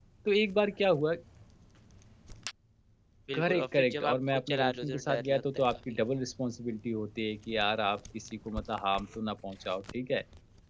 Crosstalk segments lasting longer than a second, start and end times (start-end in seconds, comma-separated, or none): 3.3-6.0